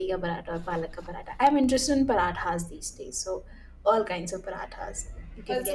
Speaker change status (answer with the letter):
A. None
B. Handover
B